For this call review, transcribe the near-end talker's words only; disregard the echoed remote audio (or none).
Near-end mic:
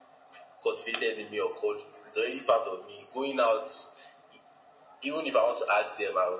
none